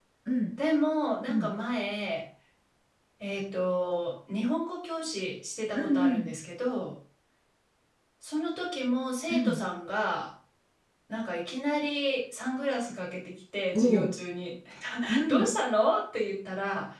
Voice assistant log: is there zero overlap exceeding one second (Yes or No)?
Yes